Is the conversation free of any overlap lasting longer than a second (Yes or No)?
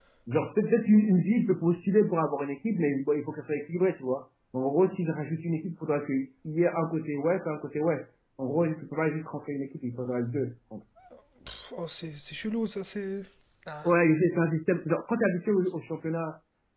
Yes